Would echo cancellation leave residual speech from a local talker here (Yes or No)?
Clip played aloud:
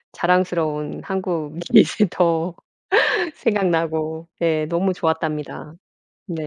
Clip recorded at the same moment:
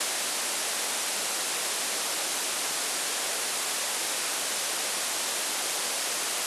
No